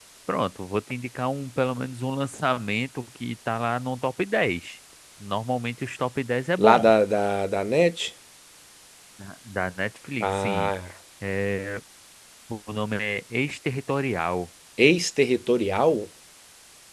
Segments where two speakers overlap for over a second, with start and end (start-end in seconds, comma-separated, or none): none